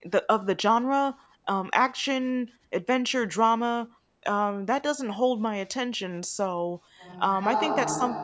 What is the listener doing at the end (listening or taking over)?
listening